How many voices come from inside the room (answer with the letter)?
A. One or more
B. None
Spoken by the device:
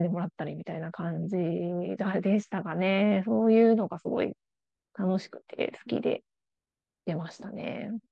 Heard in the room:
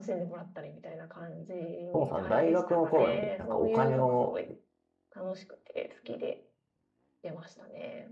A